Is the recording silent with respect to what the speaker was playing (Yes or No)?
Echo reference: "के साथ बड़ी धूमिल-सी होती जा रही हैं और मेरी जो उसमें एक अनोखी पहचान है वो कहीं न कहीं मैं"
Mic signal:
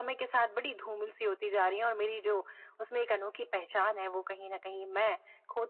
No